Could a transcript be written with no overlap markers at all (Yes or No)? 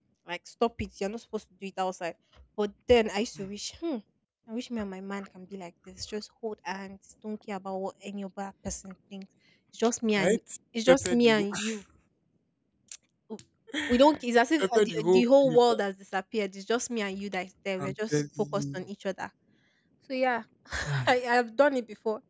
No